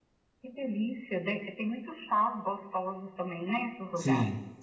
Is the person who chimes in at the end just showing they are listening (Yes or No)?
No